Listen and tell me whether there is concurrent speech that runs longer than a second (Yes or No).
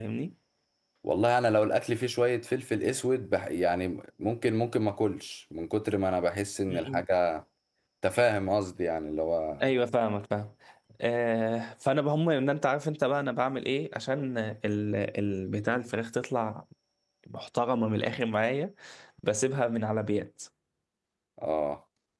No